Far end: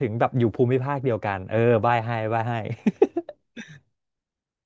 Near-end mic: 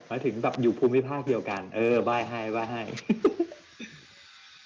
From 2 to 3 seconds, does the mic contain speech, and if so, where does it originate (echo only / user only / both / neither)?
echo only